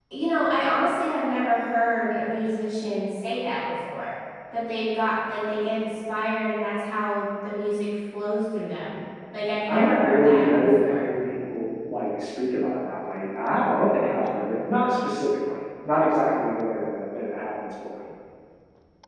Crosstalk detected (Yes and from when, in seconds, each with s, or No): Yes, from 9.7 s